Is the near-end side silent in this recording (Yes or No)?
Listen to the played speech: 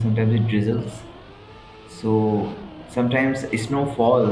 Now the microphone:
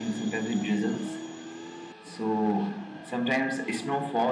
Yes